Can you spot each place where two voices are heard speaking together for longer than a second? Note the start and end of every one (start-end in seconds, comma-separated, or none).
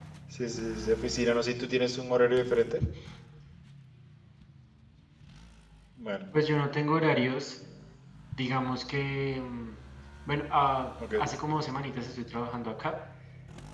none